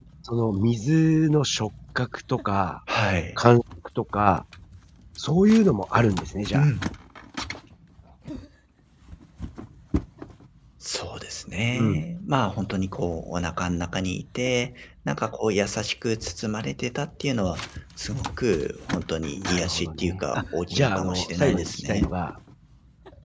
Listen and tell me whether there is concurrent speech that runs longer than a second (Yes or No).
Yes